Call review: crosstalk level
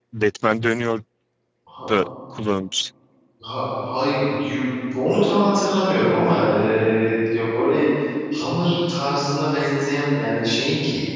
none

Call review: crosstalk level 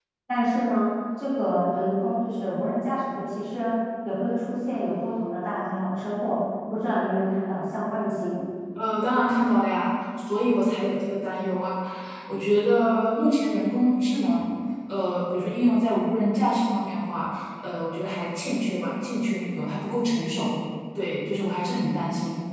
none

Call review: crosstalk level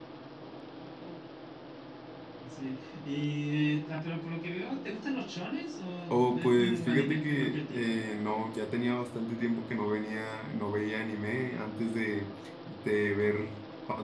present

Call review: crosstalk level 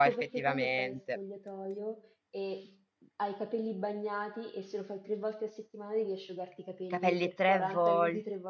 present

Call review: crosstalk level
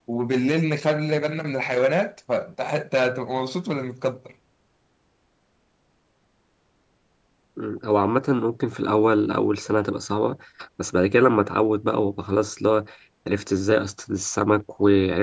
none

